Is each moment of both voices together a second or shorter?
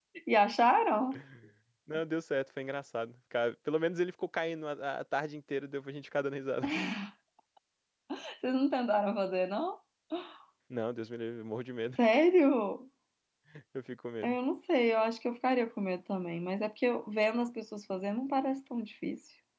Yes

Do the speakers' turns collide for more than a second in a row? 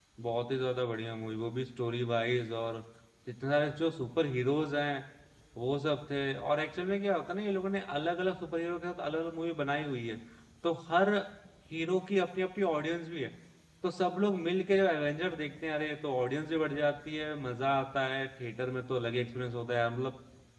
No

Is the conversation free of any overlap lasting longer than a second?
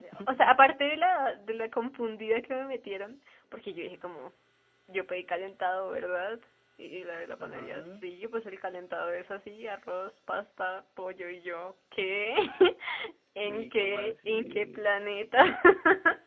No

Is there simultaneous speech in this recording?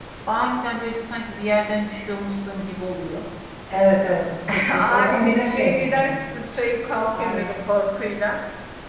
Yes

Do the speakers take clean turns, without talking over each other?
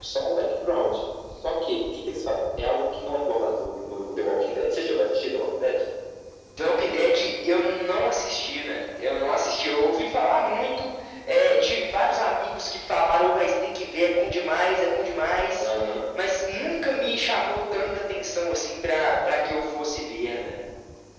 Yes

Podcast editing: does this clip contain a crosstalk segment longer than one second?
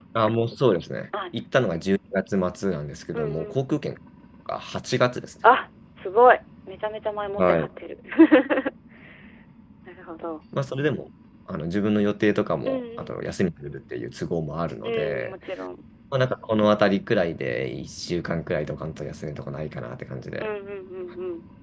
No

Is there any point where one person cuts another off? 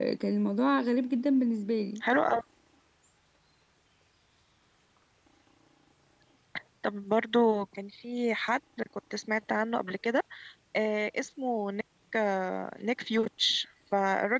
No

